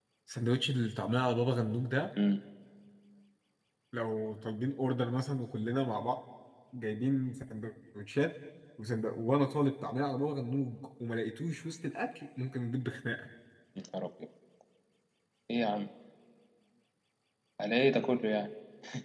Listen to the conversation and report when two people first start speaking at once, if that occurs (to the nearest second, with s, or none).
none